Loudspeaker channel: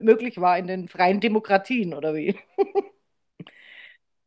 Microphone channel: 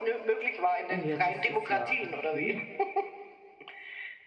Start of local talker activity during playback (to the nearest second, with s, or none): 1 s